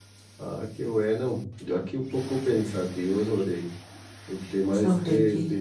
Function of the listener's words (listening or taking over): listening